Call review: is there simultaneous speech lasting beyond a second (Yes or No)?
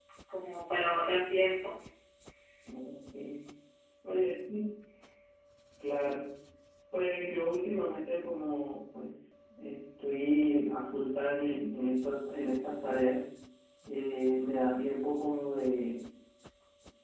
No